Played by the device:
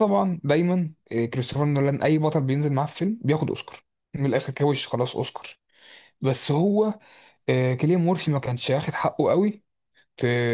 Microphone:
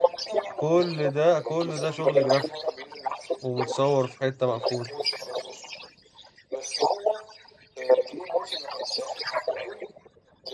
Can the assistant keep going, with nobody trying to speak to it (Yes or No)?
No